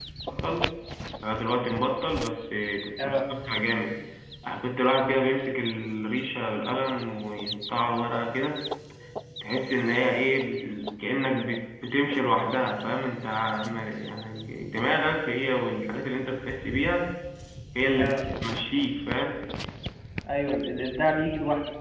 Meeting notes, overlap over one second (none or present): none